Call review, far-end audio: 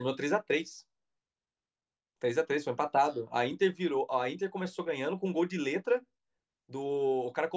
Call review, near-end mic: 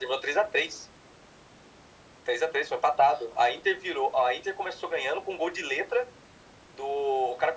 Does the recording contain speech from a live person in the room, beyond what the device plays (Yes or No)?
No